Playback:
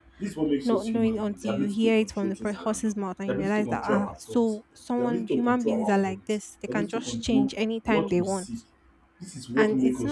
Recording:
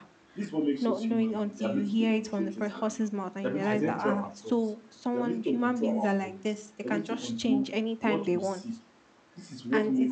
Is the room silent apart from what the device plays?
No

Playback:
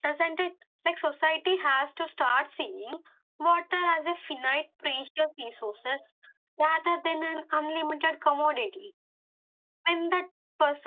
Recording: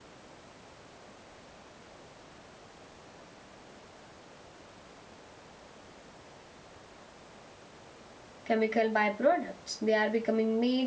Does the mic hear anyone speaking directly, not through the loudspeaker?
Yes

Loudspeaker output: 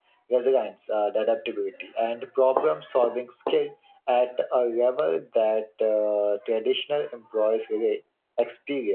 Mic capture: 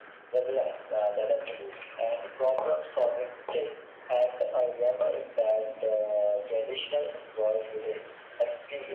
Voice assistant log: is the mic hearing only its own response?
Yes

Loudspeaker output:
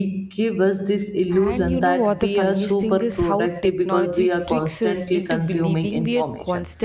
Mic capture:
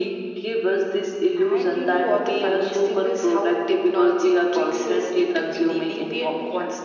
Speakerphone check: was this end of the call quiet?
Yes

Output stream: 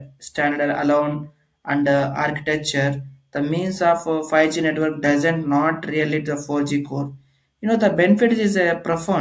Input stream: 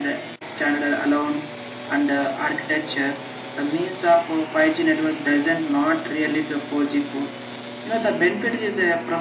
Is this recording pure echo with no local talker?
Yes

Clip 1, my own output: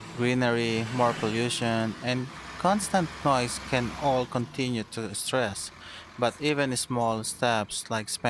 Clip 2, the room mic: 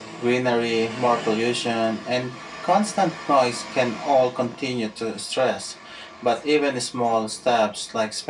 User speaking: No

